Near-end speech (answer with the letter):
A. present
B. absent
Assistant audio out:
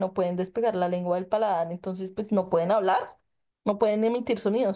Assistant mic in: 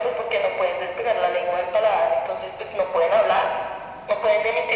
B